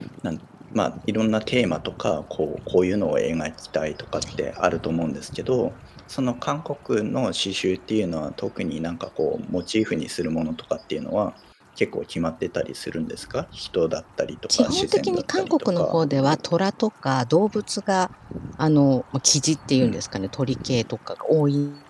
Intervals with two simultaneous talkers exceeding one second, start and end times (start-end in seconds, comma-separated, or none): 14.6-16.0